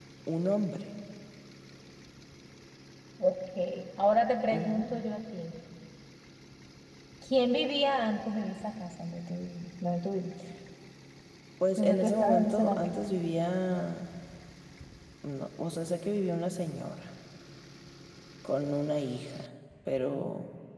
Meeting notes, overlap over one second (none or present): present